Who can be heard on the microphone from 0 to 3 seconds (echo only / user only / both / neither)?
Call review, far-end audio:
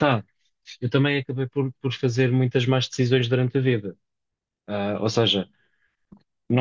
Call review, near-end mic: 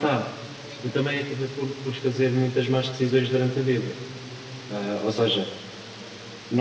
echo only